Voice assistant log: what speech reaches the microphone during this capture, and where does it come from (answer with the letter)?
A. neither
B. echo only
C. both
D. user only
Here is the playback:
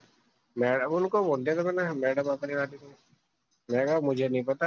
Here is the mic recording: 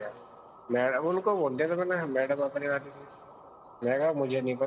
B